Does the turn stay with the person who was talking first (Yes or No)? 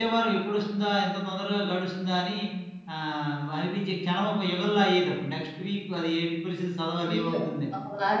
No